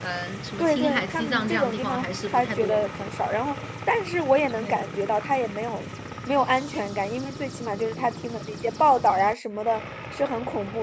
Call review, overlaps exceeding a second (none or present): present